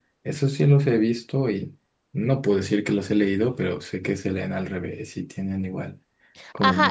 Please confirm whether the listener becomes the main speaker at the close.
Yes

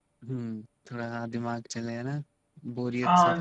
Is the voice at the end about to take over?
Yes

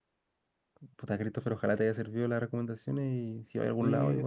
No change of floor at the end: No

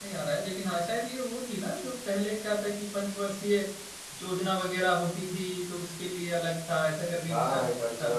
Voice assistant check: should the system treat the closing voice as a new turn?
Yes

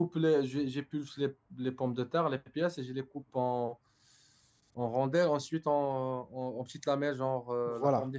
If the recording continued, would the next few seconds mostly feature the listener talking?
Yes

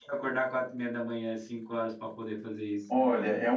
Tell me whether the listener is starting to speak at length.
Yes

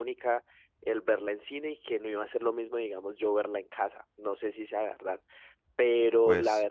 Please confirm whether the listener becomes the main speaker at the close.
No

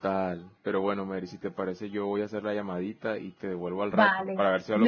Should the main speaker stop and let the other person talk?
Yes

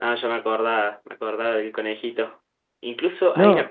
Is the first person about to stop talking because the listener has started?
No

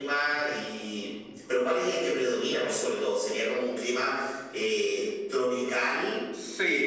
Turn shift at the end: Yes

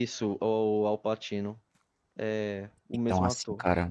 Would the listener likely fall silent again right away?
No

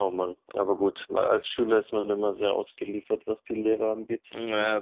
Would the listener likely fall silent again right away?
No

